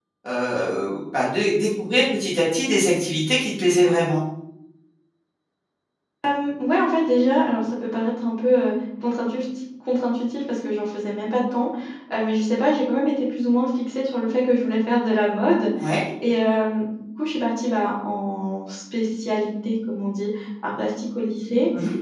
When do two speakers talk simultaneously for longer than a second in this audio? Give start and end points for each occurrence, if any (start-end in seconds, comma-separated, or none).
none